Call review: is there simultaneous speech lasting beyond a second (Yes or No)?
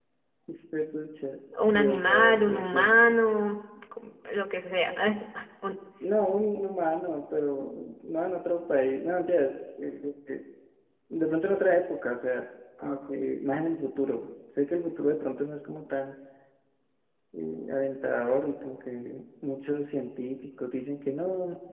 Yes